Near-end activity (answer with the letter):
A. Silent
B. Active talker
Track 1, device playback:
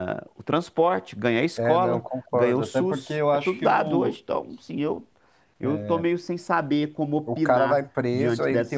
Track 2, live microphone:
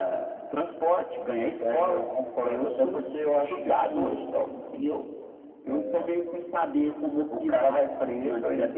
A